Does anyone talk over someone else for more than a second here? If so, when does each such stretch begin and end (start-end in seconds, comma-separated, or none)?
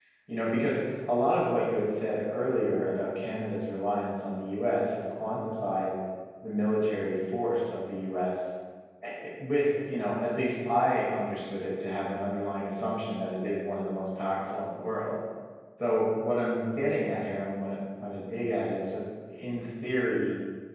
none